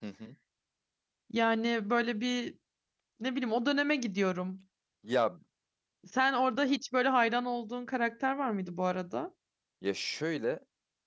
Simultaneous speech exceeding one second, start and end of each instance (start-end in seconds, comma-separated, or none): none